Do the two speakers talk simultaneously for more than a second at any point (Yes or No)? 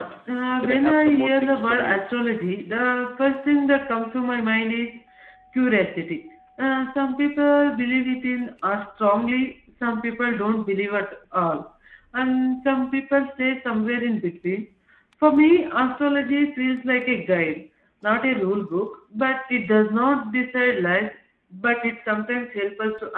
Yes